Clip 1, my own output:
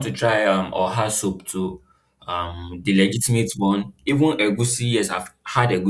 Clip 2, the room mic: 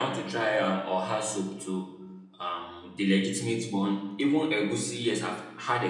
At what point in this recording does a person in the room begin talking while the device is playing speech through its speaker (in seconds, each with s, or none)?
none